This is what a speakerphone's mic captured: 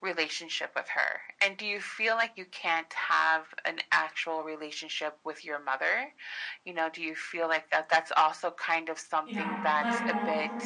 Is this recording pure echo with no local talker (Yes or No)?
No